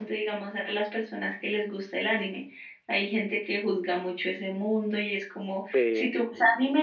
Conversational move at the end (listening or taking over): listening